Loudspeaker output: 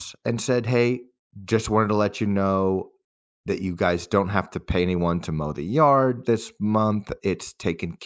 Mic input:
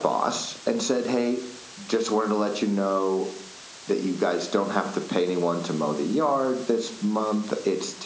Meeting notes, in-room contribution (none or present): none